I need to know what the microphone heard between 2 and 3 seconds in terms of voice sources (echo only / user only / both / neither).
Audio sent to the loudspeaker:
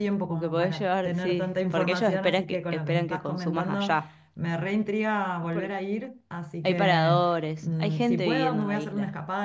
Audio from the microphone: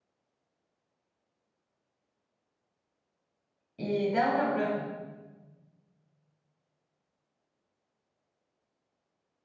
neither